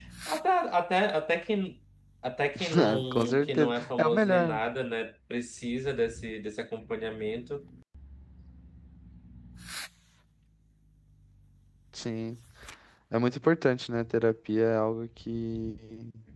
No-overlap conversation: No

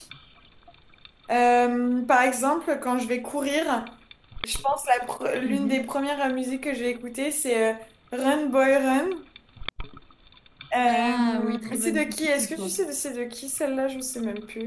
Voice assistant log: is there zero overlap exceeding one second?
No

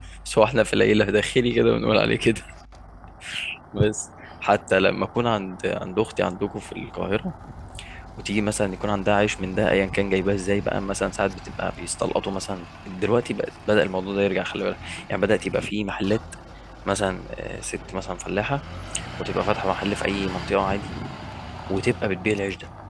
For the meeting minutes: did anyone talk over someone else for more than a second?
No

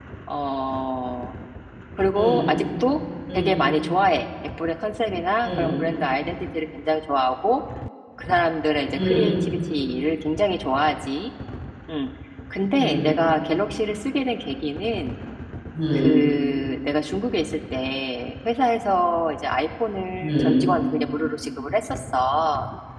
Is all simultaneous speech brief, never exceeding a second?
Yes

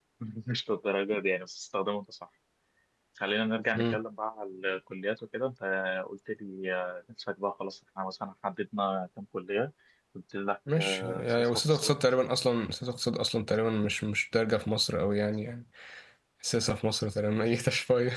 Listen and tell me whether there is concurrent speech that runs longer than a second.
Yes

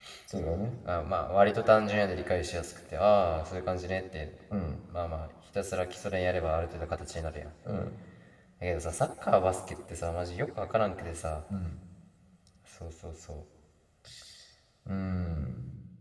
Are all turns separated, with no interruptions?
Yes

